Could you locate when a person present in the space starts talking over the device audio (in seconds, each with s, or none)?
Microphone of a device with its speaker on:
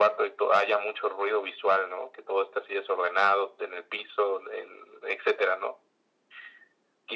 none